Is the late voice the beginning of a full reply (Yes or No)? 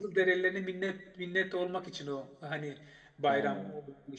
No